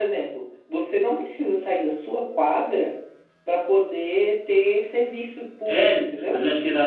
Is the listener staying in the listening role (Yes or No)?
No